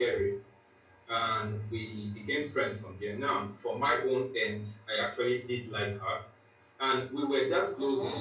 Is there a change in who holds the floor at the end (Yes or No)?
No